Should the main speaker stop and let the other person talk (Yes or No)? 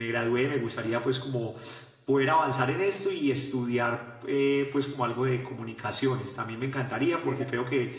No